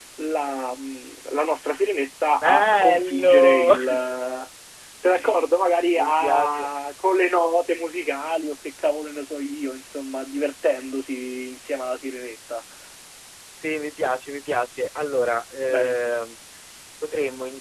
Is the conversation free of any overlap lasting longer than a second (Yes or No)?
No